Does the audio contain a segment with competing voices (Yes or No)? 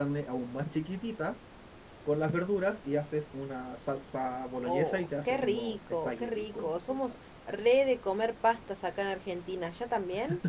Yes